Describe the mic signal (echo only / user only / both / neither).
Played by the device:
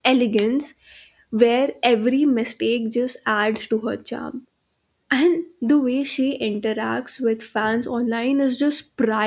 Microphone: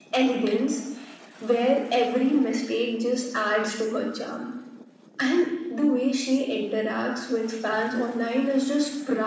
echo only